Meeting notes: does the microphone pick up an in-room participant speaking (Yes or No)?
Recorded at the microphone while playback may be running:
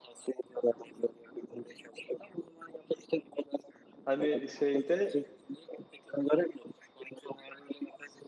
Yes